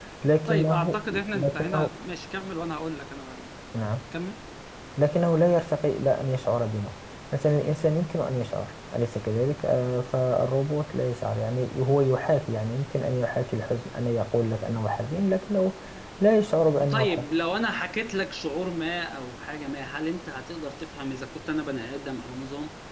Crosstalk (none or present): present